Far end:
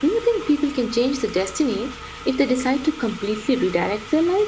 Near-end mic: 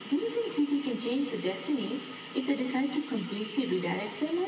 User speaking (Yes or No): No